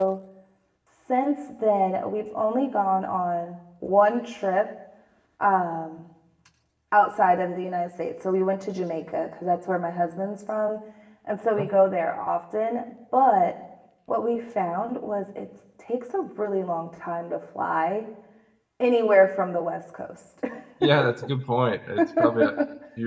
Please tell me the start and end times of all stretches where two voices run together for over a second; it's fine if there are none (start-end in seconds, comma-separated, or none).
none